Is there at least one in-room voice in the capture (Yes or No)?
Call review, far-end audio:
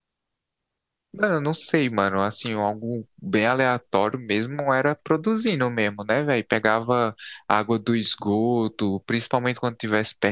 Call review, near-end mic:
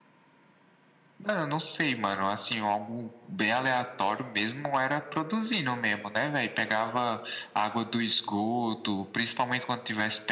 No